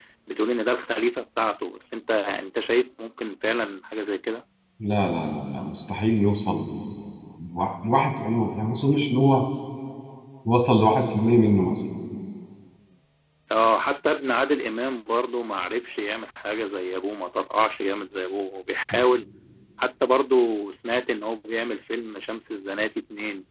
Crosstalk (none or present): none